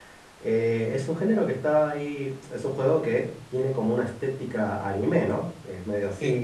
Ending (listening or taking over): listening